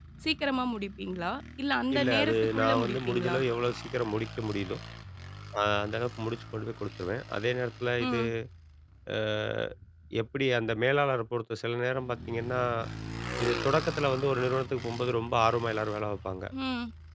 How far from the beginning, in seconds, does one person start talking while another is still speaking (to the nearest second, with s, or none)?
2 s